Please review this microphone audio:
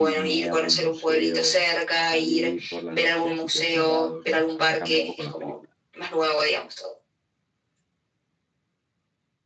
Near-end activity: present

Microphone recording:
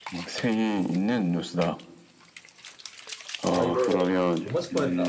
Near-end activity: present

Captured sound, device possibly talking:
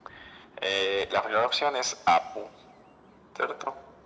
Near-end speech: none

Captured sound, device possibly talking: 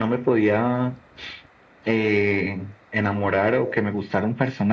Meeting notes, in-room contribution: none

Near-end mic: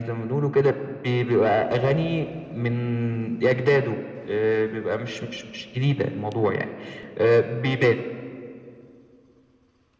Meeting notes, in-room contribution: none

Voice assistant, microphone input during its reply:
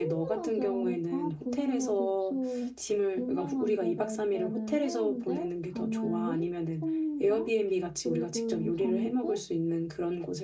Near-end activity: present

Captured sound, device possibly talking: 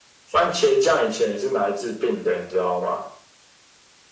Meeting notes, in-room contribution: none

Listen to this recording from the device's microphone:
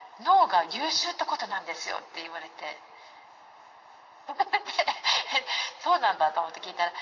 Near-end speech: none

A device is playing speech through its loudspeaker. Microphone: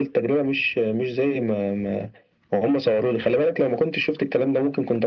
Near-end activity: none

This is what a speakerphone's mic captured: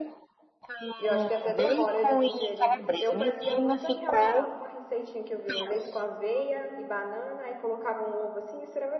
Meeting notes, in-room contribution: present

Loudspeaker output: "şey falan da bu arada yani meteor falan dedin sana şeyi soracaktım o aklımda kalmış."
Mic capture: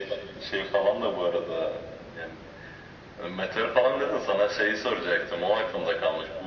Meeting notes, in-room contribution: none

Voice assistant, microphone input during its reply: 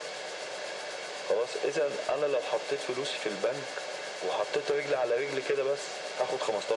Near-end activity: none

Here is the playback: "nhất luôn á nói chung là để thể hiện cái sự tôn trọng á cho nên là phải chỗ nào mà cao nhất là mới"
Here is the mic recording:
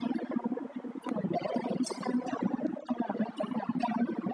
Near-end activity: none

